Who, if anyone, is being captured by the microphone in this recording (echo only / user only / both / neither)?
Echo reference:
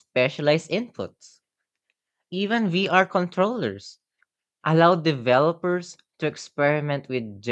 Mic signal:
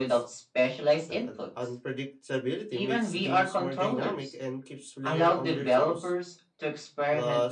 both